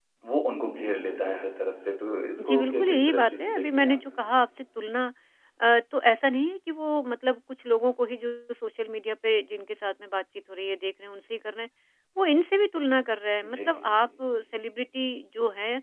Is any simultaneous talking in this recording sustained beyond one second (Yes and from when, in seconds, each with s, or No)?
Yes, from 2.4 s